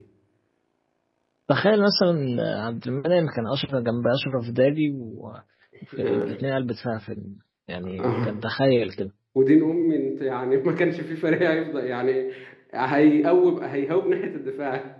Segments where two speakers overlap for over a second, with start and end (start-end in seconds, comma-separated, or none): none